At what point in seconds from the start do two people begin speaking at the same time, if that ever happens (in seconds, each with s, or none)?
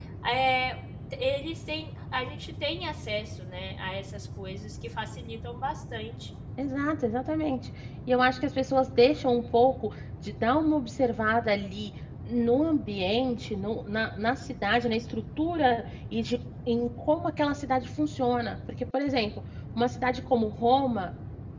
none